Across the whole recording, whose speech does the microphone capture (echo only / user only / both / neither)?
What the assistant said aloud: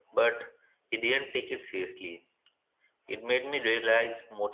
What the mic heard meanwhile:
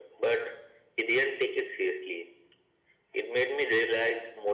echo only